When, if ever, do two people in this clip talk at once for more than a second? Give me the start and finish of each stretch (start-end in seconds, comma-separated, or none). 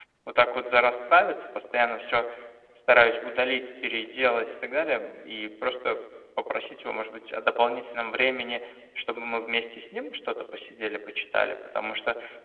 none